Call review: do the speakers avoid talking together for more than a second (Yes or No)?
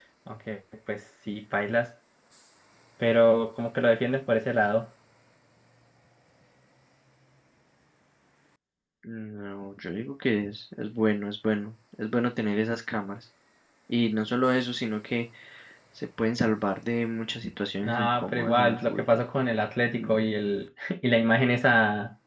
No